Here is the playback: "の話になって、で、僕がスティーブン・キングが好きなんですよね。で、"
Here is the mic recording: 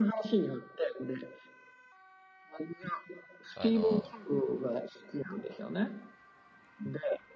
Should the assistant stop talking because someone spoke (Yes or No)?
Yes